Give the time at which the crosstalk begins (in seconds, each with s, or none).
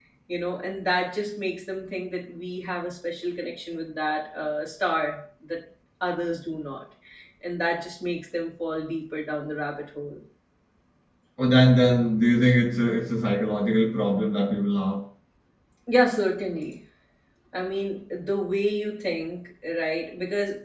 none